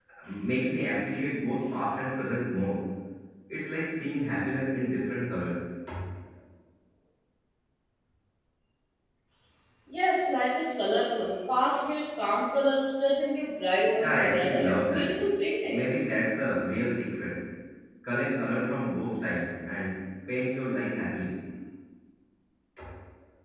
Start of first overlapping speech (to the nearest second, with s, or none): 14 s